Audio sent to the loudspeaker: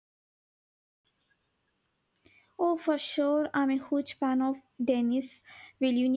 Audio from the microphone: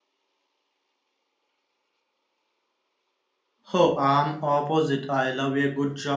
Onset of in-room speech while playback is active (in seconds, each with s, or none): 3.7 s